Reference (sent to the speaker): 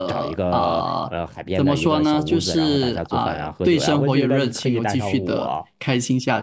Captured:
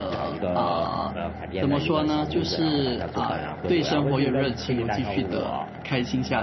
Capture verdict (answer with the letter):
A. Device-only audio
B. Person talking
A